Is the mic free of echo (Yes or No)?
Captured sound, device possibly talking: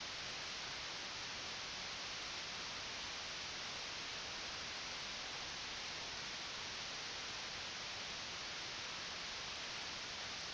Yes